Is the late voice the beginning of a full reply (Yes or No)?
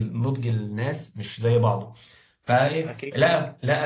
No